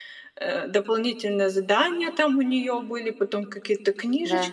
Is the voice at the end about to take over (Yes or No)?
No